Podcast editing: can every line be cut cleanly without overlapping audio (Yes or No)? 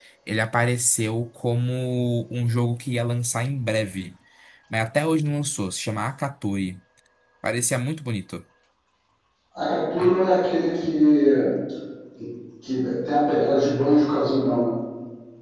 Yes